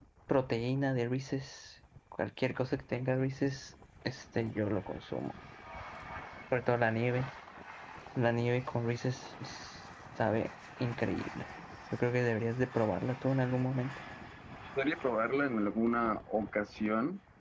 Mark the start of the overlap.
none

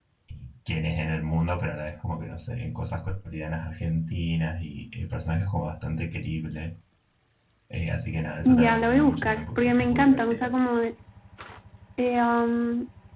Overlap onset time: 8.4 s

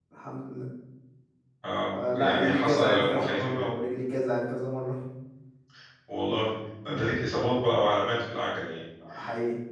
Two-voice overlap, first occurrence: 1.9 s

